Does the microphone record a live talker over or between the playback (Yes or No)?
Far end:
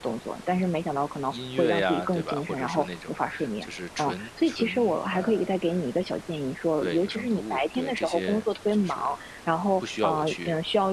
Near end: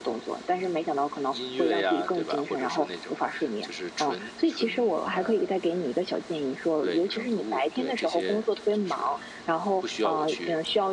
No